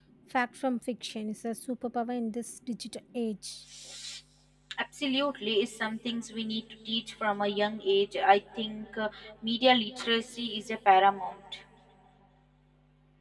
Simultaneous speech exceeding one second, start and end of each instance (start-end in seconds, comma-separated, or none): none